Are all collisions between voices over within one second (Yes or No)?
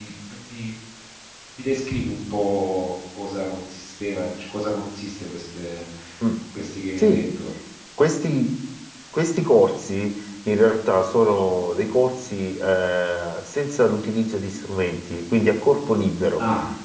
Yes